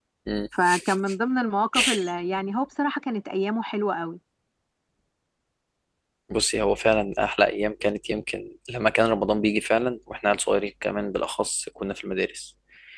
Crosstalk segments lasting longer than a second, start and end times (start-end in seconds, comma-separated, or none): none